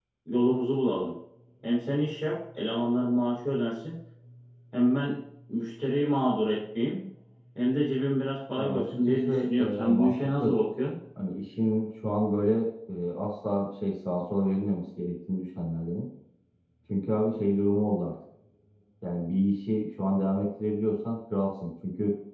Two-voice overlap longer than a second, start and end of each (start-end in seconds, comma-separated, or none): 8.6-10.5